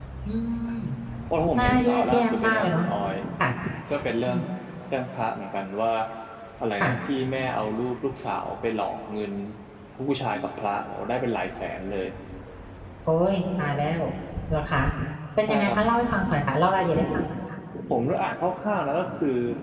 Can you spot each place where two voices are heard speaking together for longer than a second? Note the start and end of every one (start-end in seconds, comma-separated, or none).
1.6-2.8